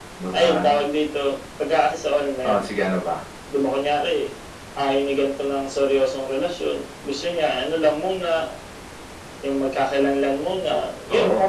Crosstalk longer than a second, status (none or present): none